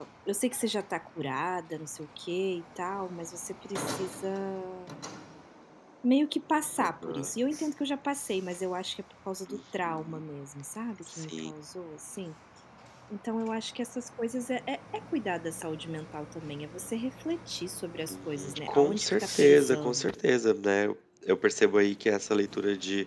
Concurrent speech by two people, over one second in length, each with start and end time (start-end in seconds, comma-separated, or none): 18.1-20.1